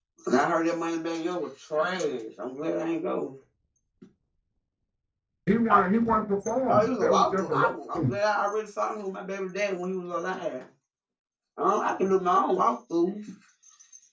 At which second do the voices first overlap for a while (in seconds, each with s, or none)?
6.7 s